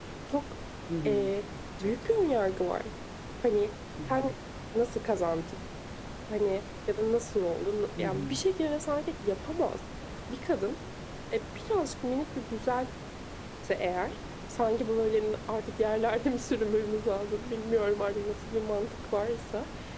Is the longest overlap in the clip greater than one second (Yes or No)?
No